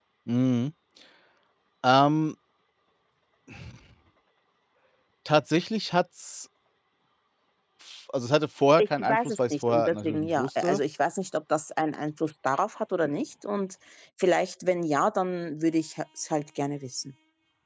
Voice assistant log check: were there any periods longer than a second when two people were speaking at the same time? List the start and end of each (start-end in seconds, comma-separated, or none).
8.8-10.8